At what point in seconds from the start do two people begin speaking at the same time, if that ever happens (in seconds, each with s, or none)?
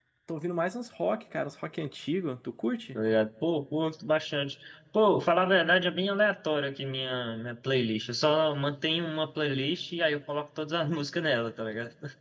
none